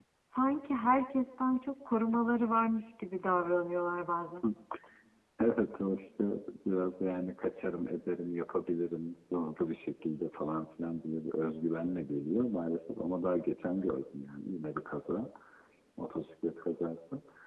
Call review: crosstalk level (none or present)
none